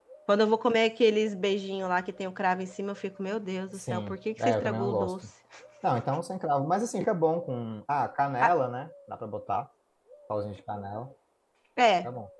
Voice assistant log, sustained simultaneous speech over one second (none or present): present